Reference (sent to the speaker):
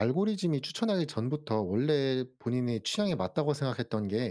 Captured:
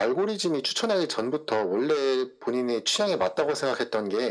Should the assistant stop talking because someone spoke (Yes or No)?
No